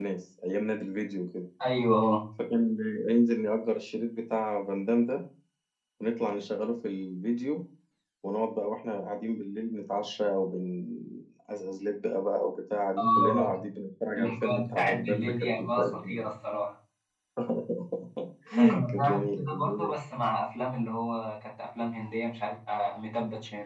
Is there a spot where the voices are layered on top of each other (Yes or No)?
Yes